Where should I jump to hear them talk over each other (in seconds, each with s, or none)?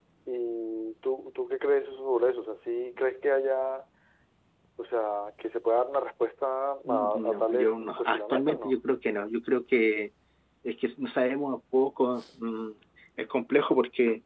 6.8 s